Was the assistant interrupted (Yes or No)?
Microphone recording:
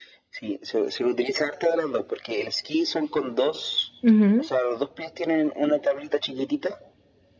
Yes